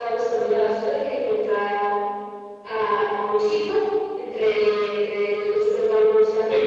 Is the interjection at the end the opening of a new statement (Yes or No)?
Yes